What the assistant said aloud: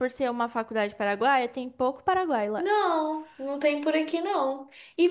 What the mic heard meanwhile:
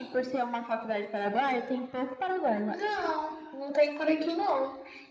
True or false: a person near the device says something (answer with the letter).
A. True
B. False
B